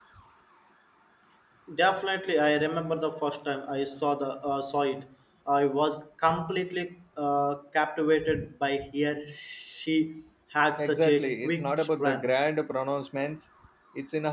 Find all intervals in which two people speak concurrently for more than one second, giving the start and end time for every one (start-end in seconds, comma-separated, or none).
10.8-12.3